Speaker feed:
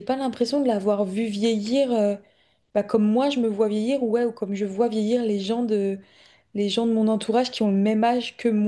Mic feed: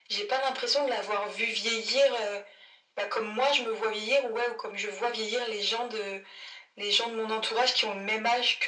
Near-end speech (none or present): none